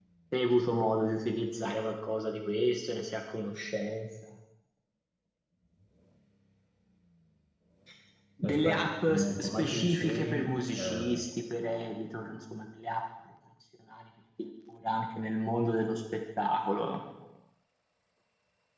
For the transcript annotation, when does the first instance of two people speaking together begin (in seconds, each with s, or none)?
8.4 s